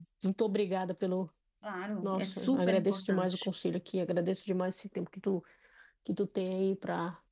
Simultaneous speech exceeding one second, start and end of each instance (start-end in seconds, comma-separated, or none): 2.0-3.4